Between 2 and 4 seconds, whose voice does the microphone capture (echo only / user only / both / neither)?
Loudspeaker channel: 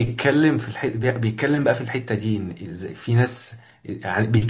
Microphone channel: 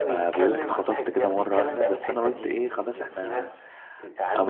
both